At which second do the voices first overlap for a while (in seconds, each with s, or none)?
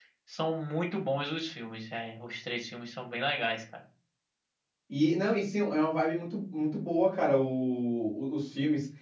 none